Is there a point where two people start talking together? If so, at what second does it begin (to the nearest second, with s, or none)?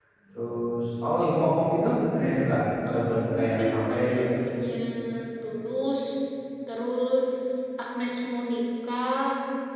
3 s